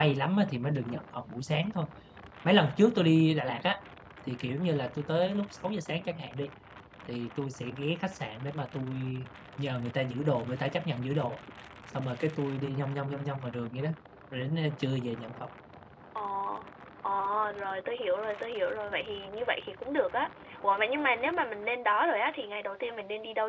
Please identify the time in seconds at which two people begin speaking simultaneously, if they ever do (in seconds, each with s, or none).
none